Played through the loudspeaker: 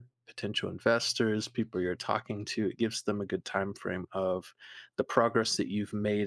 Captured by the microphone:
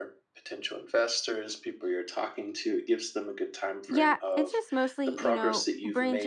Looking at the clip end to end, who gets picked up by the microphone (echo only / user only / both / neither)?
both